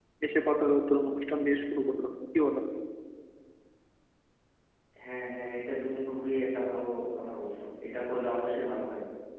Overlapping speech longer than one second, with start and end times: none

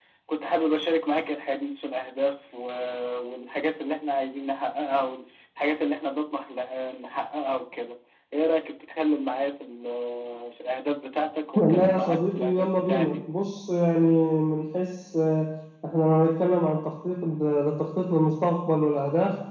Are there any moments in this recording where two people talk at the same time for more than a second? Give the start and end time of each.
11.6-13.2

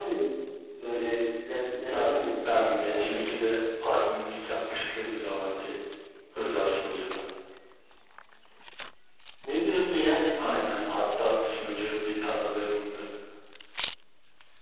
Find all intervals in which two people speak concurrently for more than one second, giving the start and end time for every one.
1.9-3.3

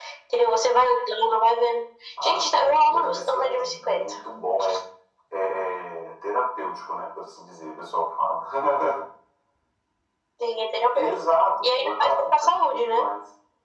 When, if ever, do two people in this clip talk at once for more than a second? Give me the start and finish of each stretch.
2.2-4.0, 11.6-13.1

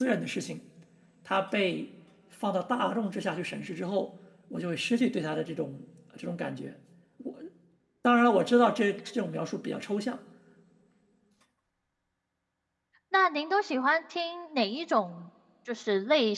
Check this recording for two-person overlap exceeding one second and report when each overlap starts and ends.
none

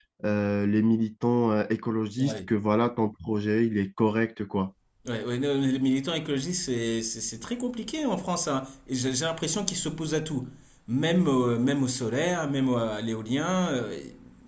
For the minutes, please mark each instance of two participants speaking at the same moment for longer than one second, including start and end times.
none

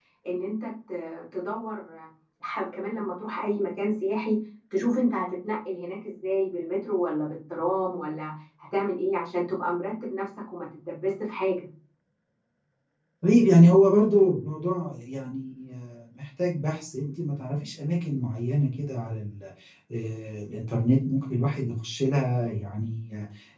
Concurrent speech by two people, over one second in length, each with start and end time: none

